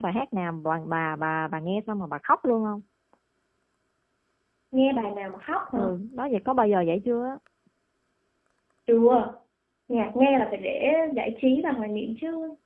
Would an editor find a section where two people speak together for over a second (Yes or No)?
No